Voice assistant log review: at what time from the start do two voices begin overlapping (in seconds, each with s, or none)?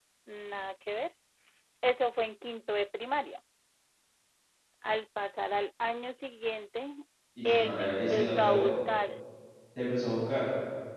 7.5 s